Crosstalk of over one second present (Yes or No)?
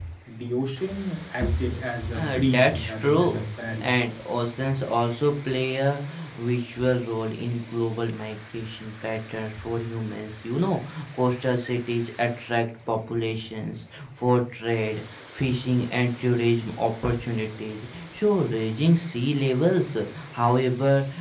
Yes